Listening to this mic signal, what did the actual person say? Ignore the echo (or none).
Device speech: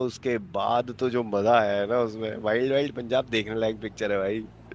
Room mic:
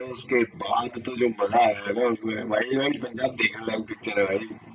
none